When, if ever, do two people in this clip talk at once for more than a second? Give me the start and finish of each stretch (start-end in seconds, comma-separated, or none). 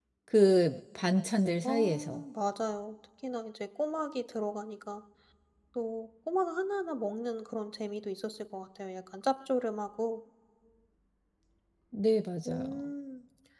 none